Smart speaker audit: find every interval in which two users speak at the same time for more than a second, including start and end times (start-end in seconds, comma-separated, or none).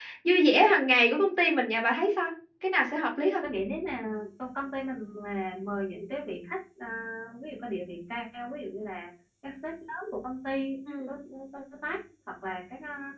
none